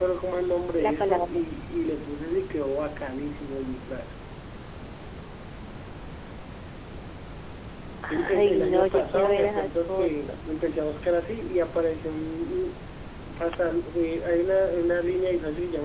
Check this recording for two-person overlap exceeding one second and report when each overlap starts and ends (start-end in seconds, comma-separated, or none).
8.1-10.4